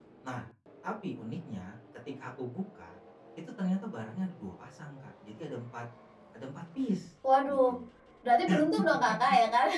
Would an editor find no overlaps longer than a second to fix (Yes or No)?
Yes